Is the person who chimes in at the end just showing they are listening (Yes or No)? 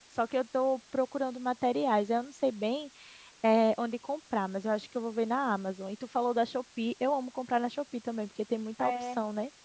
No